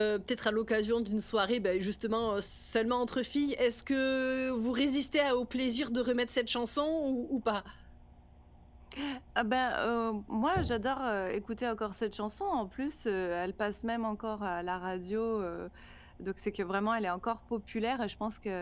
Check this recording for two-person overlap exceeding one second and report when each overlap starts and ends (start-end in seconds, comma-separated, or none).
none